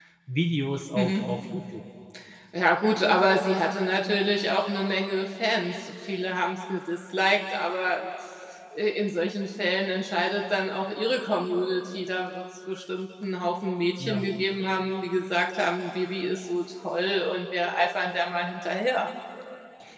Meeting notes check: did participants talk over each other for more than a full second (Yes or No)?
No